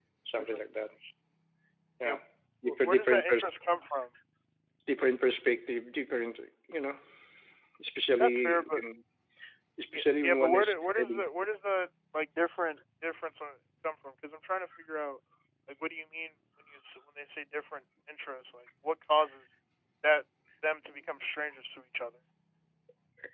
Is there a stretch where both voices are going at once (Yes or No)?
Yes